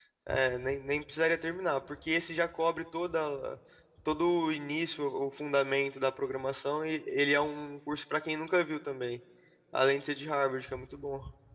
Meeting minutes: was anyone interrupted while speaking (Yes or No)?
No